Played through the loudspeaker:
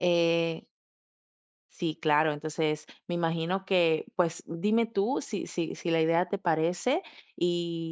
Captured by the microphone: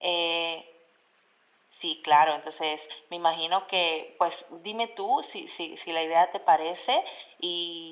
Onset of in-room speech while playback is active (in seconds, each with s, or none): none